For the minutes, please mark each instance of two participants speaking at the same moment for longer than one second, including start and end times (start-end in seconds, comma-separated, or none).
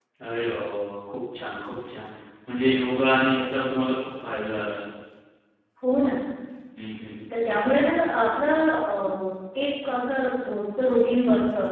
none